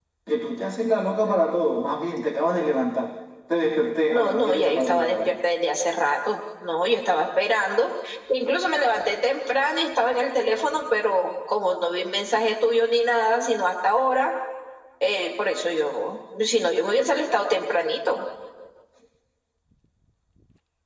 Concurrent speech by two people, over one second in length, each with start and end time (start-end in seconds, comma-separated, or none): 4.1-5.3